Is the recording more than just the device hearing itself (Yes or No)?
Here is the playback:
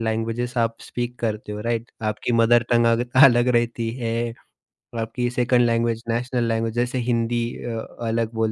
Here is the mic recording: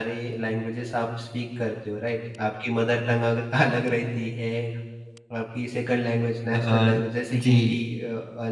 Yes